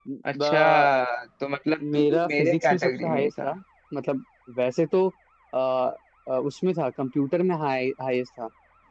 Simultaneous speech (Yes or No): Yes